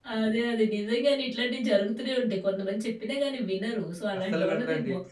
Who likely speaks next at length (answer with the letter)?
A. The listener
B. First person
B